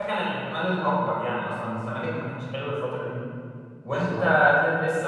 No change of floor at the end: Yes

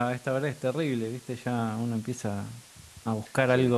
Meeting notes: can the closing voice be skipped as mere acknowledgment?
Yes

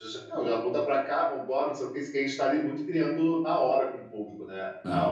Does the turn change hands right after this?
Yes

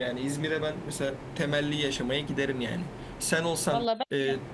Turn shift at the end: No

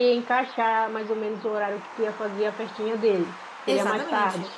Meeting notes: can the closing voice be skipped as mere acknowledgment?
No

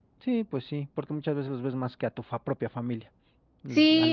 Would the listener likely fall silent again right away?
No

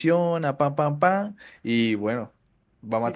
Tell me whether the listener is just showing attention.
No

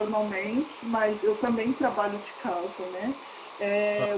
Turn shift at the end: No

